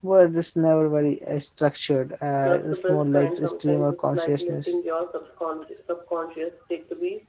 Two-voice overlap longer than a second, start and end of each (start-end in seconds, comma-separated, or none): 2.4-4.7